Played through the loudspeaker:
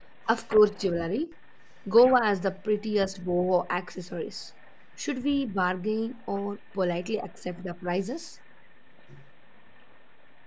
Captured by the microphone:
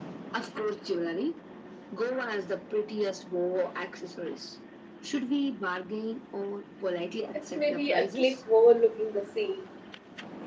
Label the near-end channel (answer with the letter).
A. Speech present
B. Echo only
A